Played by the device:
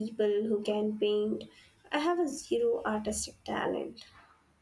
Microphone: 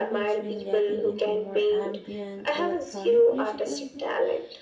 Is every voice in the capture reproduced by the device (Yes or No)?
No